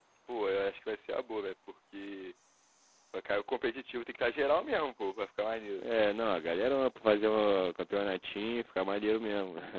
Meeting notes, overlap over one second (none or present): none